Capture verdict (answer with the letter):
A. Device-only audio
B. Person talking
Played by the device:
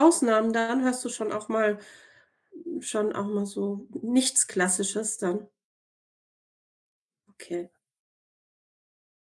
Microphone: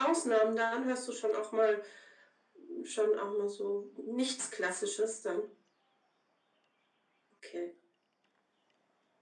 A